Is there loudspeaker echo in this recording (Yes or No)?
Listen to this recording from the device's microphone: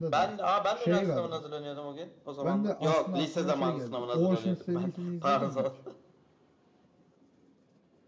Yes